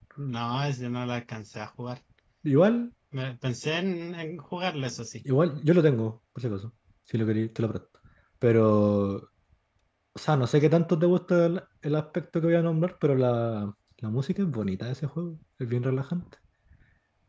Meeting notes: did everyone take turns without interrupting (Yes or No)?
Yes